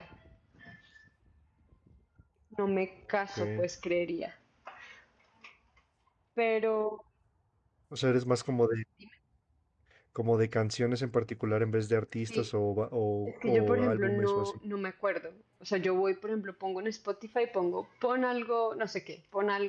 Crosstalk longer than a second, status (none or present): present